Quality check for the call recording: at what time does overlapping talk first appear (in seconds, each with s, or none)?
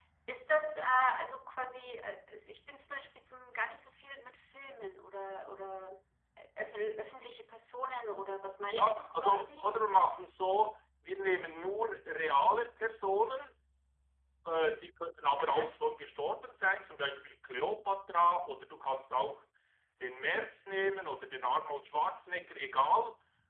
8.6 s